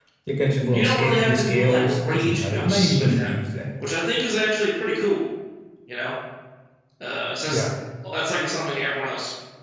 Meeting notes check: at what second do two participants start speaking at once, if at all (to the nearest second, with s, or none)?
1 s